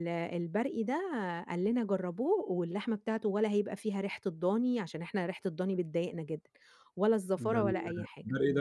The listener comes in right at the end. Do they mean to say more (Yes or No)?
Yes